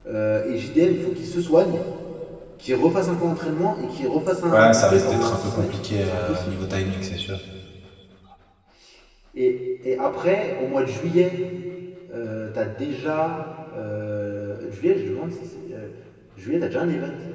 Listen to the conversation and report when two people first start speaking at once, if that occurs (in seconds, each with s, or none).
4.5 s